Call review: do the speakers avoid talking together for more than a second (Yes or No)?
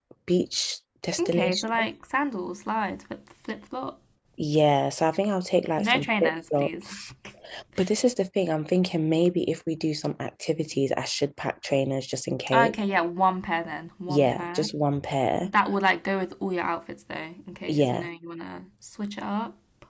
No